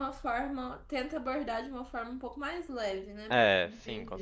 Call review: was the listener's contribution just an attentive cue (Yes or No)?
No